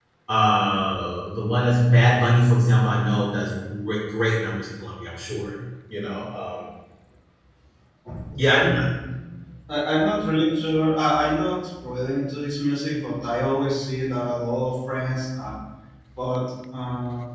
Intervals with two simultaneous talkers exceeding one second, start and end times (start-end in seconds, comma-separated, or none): none